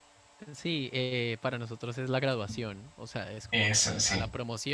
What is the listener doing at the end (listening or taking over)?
listening